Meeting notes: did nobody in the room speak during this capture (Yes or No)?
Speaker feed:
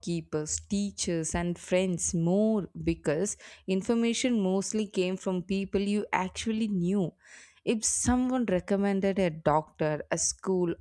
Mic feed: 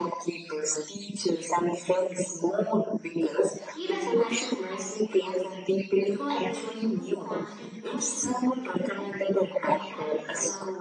No